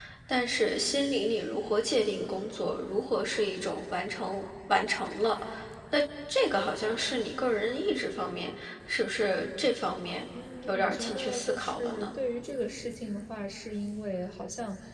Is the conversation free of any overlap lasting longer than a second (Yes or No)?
No